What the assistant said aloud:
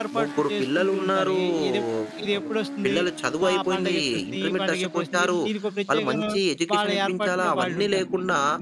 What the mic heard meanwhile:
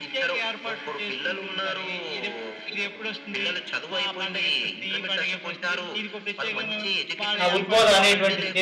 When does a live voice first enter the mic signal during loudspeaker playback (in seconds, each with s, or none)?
7.4 s